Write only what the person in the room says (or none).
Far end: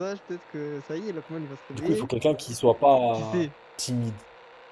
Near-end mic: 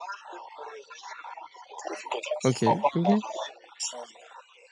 ok, ok.